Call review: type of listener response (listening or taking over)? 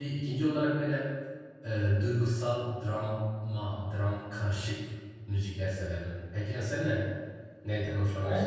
taking over